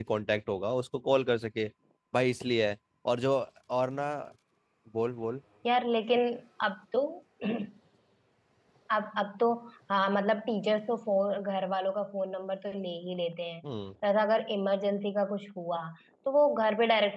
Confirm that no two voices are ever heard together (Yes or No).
Yes